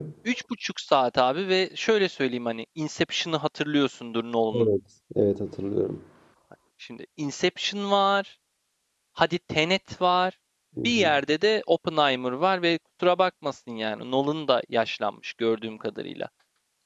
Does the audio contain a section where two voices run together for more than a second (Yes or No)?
No